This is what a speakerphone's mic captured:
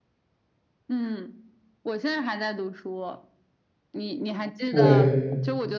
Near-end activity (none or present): present